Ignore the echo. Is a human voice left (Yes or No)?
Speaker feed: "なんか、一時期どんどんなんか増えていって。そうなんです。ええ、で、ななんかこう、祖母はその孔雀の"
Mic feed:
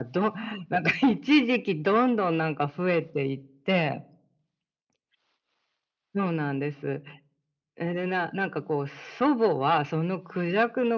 No